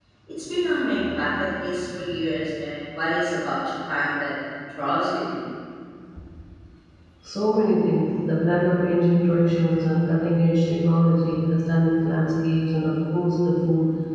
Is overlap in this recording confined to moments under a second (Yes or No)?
Yes